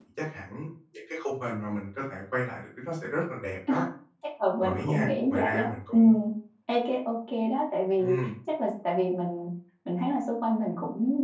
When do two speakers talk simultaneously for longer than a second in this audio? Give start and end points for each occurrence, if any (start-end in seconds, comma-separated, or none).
4.6-6.1